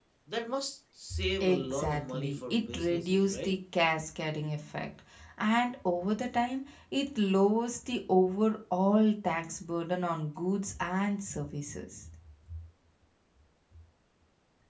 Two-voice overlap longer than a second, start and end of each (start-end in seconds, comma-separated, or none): 1.4-3.5